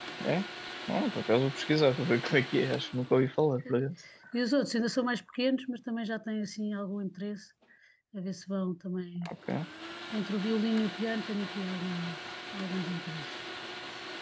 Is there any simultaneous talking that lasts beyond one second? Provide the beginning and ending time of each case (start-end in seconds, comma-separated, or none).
none